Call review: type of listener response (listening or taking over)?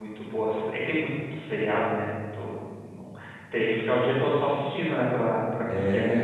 taking over